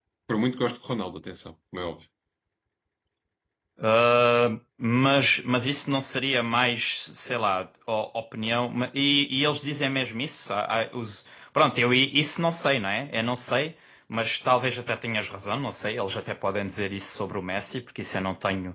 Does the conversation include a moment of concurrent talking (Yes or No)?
No